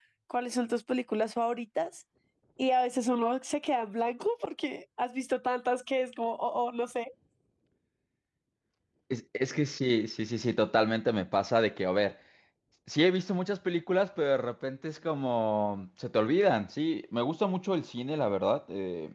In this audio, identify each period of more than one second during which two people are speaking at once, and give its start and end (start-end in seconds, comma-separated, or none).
none